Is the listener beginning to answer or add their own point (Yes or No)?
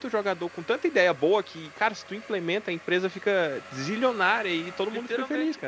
Yes